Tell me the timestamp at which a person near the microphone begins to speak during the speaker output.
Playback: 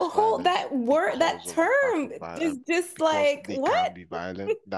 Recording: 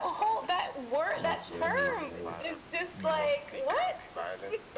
1.1 s

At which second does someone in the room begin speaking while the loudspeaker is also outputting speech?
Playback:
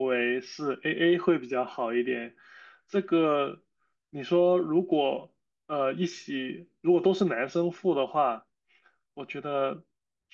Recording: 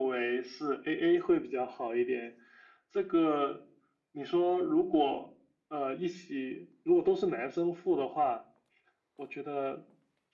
none

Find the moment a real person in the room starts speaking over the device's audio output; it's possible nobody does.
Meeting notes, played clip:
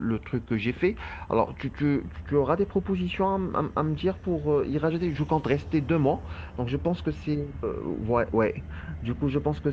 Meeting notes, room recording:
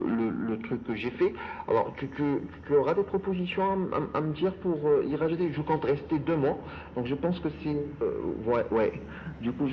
none

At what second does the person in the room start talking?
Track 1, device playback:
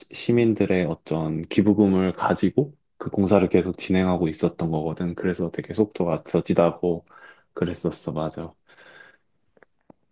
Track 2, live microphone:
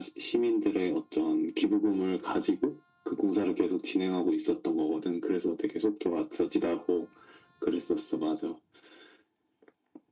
none

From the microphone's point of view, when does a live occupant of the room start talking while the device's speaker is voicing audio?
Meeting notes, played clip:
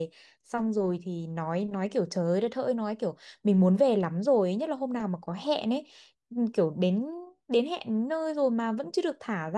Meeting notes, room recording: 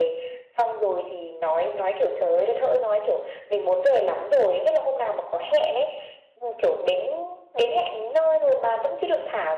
none

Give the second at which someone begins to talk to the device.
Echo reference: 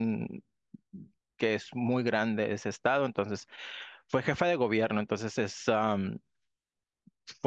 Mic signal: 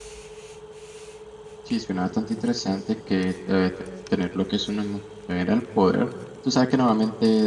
1.6 s

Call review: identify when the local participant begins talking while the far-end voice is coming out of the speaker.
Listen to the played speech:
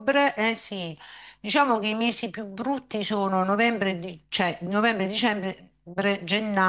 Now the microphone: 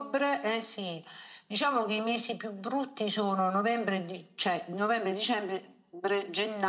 none

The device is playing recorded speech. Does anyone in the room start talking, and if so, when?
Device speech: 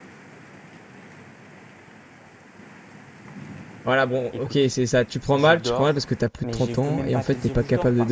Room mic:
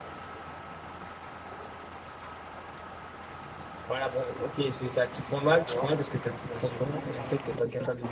none

